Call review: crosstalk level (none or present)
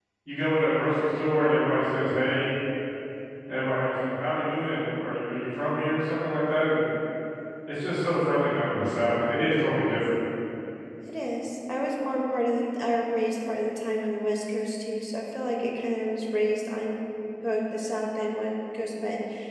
none